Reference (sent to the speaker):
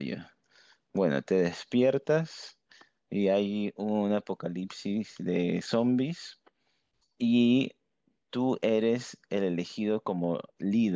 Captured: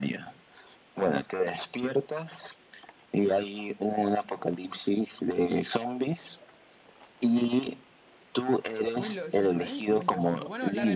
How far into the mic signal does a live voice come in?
8.9 s

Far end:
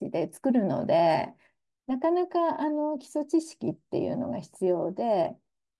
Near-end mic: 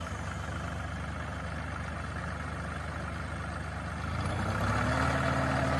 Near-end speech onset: none

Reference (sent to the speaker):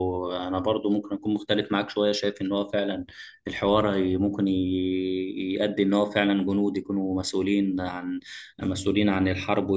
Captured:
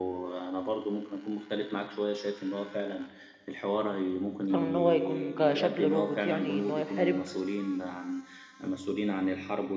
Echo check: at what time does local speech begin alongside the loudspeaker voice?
4.4 s

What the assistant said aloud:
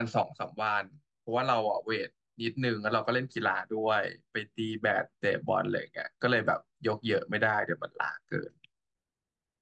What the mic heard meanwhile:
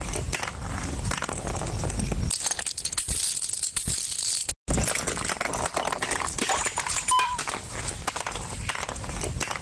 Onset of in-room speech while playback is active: none

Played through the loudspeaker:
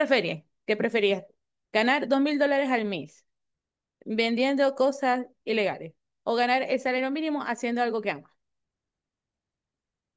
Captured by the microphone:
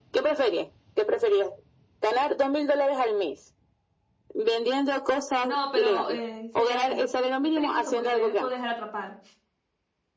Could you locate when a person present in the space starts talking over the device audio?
5.4 s

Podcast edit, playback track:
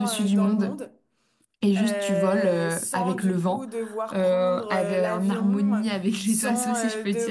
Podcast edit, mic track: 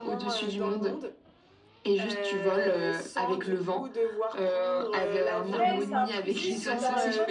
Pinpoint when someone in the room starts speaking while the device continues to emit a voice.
5.5 s

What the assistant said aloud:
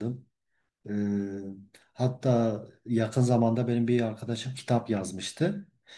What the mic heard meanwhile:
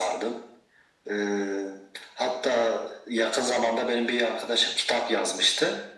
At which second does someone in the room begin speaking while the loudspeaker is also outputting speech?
none

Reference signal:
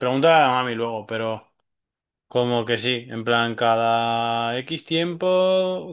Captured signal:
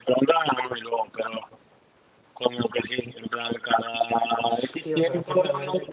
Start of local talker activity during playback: 4.5 s

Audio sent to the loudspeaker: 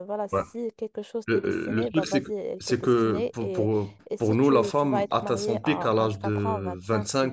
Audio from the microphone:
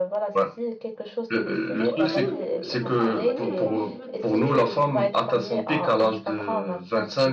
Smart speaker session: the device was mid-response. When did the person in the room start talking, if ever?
1.7 s

